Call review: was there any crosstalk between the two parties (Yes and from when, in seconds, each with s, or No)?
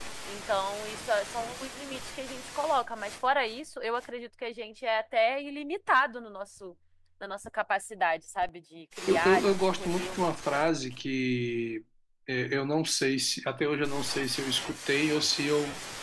Yes, from 9.1 s